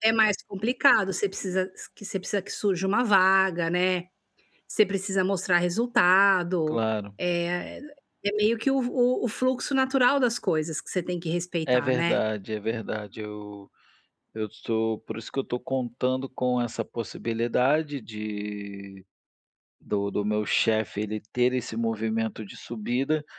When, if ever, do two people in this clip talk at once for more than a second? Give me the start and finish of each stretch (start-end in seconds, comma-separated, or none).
none